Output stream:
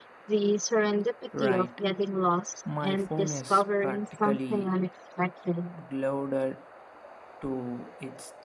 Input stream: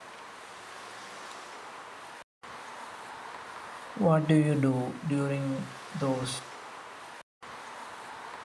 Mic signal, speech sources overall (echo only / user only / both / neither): user only